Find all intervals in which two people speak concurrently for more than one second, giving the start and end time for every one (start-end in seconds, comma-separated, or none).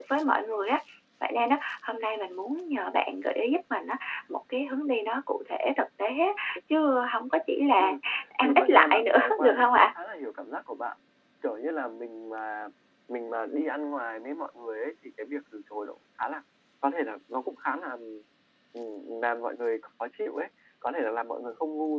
8.4-9.9